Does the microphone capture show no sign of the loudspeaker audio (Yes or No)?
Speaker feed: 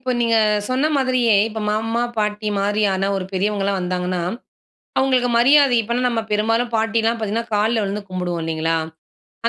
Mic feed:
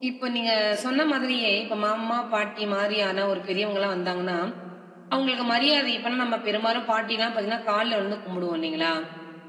No